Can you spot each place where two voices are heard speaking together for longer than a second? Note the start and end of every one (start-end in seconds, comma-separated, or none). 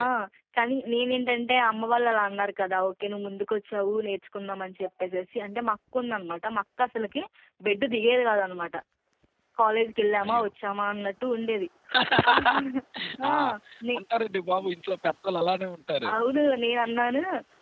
none